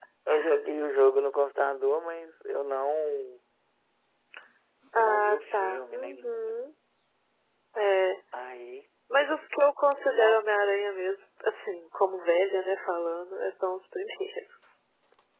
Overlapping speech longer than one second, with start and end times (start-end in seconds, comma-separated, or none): 5.0-6.6